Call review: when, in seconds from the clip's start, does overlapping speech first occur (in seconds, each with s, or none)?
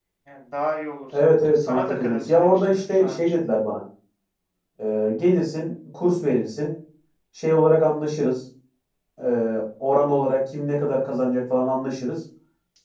1.2 s